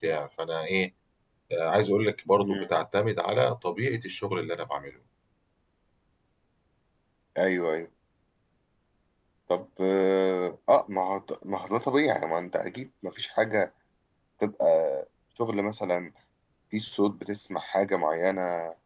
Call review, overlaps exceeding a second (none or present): none